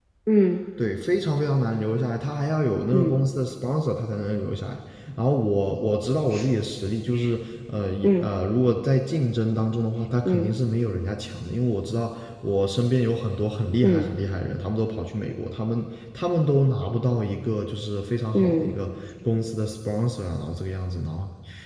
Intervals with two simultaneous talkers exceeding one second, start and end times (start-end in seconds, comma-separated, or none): none